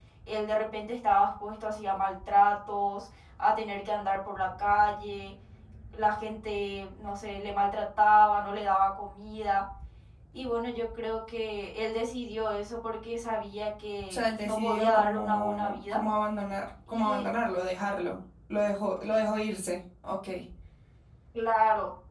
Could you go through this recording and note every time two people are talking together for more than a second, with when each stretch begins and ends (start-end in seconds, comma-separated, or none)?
14.1-16.0